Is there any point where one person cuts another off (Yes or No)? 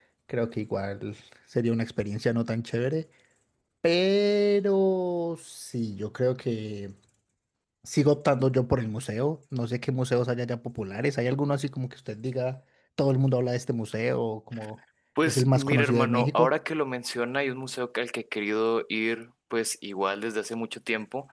Yes